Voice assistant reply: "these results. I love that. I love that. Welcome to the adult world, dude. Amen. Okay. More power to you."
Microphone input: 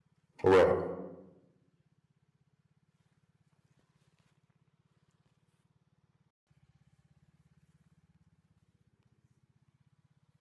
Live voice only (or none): right.